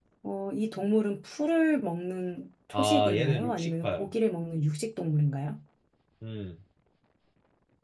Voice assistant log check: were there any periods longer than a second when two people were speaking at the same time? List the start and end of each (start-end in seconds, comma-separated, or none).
2.7-4.1